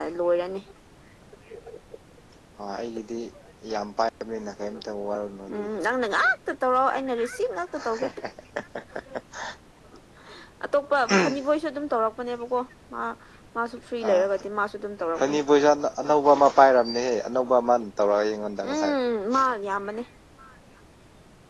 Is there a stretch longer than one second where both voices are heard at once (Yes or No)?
No